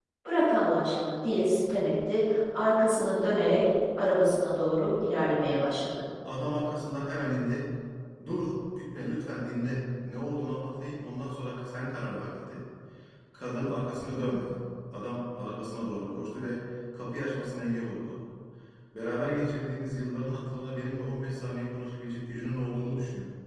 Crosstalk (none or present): none